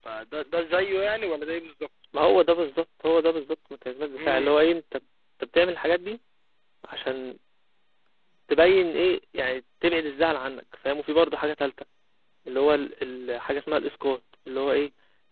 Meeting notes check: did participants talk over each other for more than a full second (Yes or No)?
No